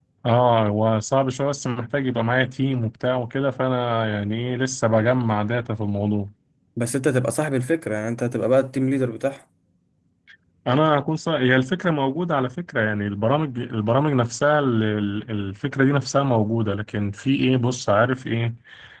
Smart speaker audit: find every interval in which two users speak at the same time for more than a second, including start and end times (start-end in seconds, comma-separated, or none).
none